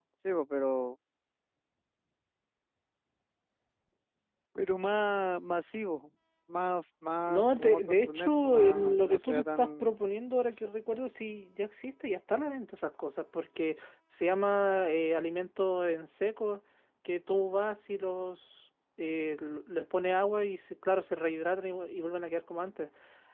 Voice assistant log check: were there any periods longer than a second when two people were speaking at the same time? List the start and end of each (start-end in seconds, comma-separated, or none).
7.3-9.9